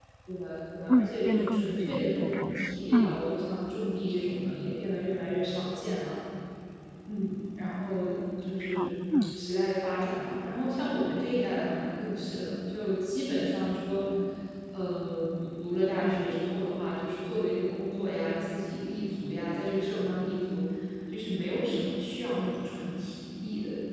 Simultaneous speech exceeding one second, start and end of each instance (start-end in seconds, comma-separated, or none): 0.9-3.2